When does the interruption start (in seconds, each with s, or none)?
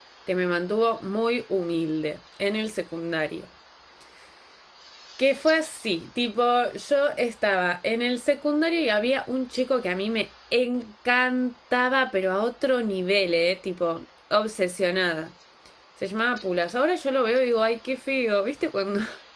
none